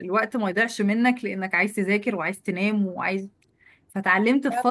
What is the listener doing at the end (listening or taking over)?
listening